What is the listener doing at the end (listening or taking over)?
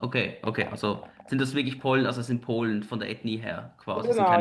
taking over